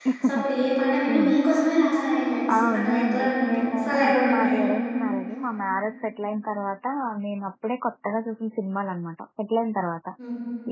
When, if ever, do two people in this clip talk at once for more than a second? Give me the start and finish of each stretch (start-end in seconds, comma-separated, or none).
2.5-4.6